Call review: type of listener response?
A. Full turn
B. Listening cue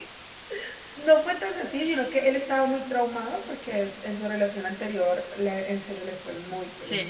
A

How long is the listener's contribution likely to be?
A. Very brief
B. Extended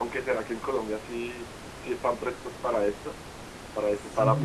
B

